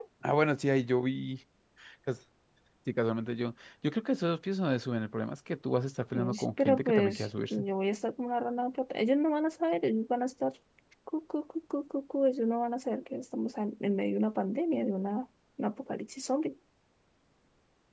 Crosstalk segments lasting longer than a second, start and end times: 6.1-7.6

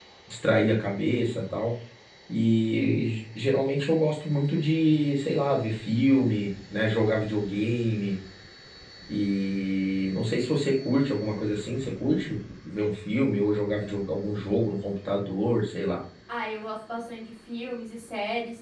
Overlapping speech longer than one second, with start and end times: none

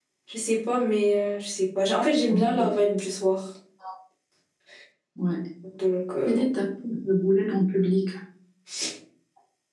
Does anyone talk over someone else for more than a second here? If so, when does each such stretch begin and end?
none

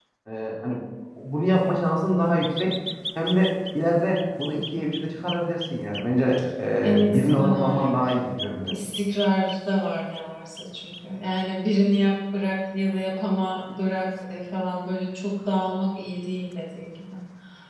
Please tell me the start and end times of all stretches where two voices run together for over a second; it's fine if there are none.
6.8-8.8

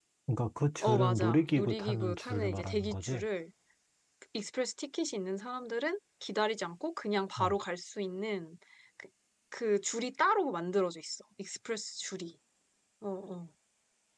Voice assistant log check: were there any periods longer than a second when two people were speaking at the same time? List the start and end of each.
0.8-3.2

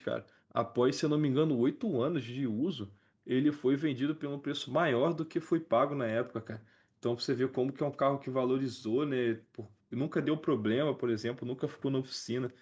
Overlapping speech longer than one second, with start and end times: none

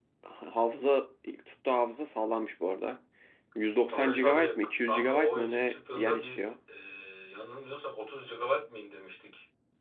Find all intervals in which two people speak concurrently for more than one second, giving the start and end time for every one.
3.9-6.5

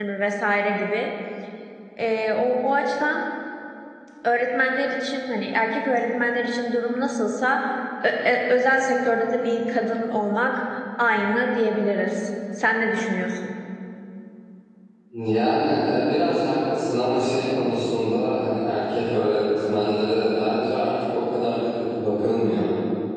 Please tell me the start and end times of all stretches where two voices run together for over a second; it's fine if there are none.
none

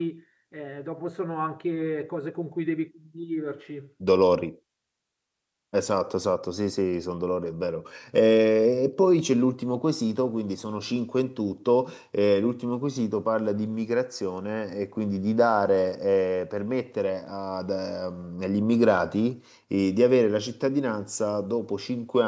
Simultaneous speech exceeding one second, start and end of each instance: none

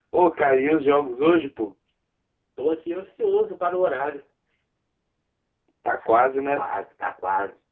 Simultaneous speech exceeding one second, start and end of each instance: none

